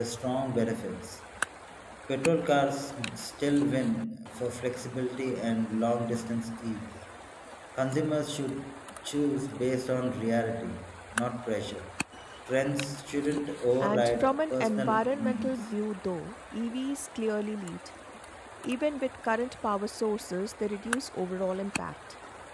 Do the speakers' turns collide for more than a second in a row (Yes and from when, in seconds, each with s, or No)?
Yes, from 13.8 s